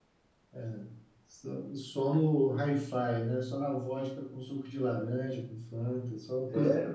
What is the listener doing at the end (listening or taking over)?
taking over